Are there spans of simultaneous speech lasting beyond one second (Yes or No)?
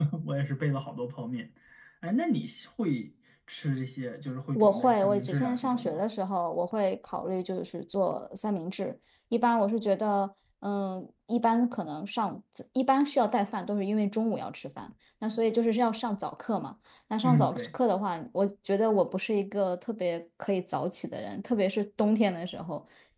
Yes